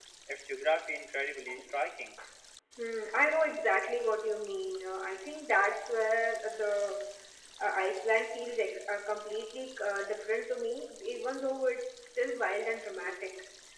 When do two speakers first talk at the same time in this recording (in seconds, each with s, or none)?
none